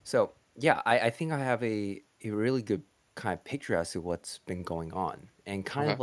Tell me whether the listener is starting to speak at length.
No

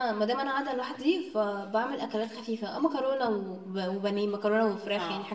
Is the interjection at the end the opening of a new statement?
No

